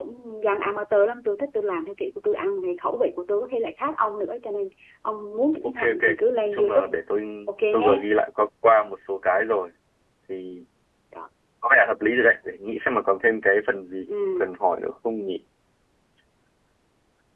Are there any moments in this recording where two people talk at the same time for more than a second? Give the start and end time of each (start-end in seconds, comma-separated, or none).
none